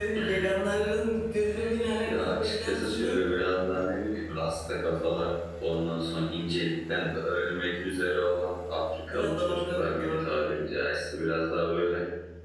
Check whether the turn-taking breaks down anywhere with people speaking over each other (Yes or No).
Yes